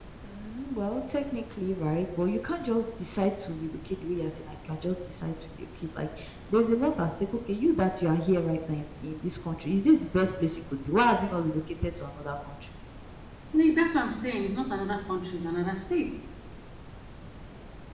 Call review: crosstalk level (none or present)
none